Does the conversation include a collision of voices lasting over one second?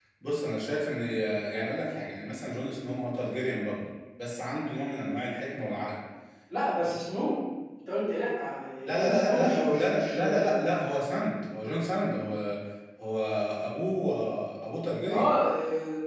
Yes, from 8.9 s

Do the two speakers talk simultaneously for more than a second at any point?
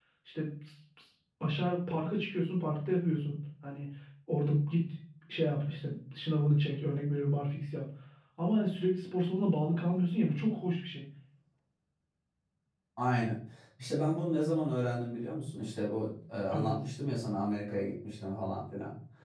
No

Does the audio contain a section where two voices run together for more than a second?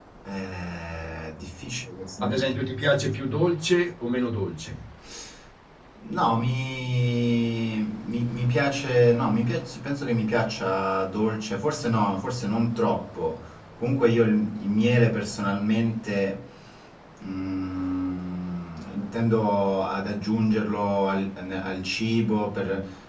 No

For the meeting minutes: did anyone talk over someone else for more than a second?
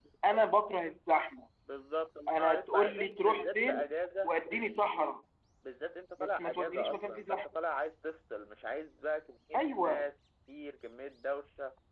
Yes, from 2.3 s

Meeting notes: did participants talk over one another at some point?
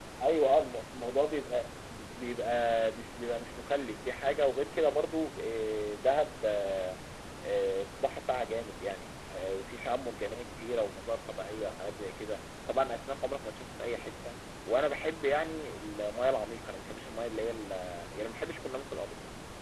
No

